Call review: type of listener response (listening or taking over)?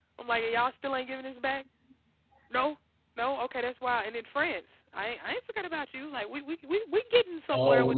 taking over